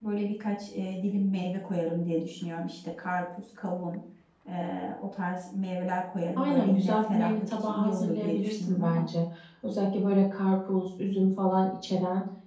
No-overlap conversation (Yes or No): No